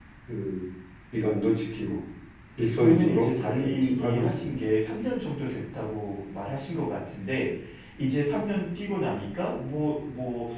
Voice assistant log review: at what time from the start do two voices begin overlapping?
3 s

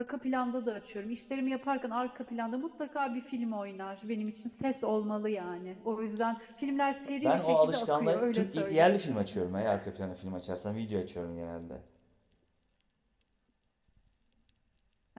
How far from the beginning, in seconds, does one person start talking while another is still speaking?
7 s

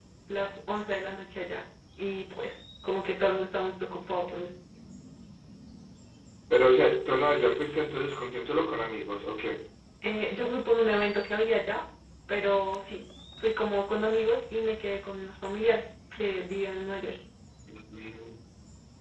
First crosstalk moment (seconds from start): none

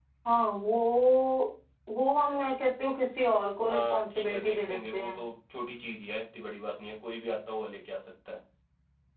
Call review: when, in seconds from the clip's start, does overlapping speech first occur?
4 s

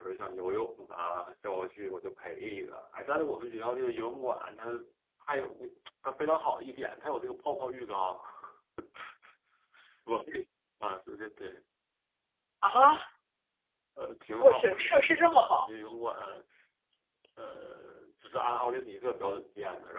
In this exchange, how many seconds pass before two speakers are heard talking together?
14 s

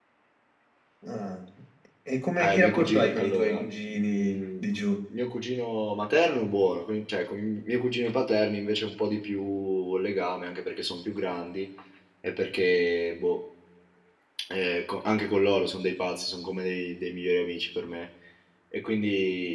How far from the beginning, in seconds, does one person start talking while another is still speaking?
2 s

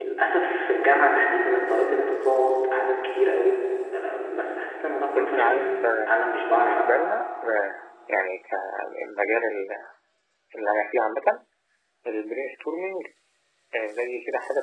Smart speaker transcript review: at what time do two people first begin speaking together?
5 s

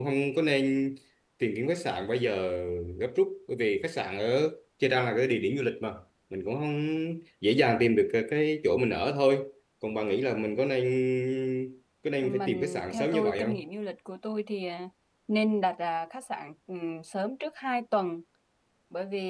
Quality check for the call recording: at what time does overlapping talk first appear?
12 s

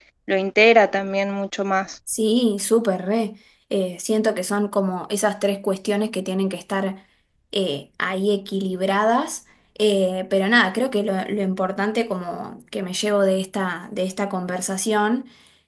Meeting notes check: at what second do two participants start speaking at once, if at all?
none

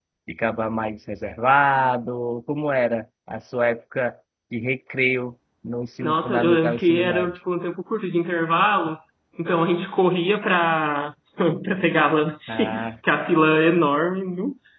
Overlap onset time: 6 s

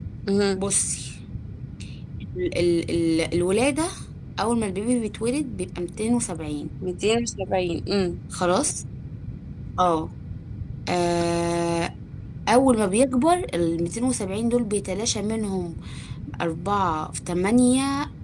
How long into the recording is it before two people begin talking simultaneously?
none

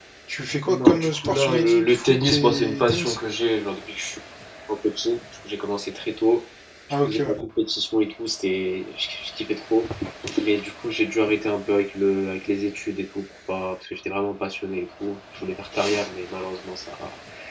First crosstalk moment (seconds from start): 1 s

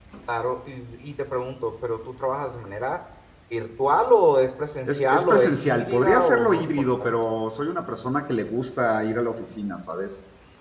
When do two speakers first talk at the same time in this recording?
5 s

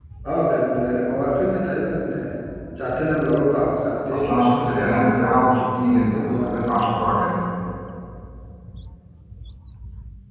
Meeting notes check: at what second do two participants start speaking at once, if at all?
4 s

